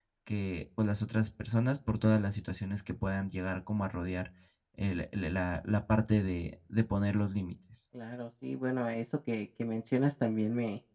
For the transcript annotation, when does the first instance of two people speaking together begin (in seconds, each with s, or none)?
none